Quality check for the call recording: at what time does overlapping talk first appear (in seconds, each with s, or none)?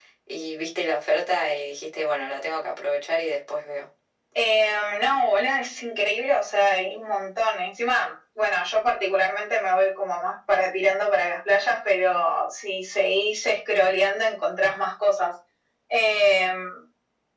none